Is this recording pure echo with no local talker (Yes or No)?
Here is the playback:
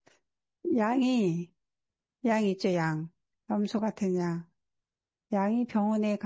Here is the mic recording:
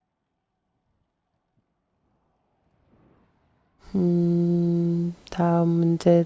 No